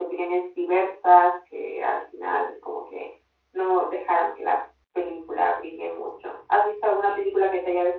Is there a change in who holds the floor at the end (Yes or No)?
No